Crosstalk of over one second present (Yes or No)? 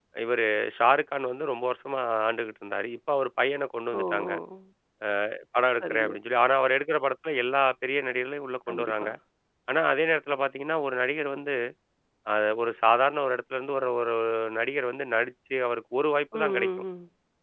No